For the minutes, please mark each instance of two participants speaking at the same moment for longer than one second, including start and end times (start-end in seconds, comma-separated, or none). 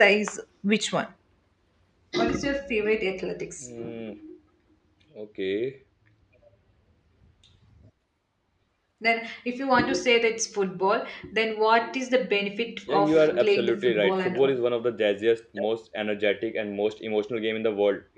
12.9-14.6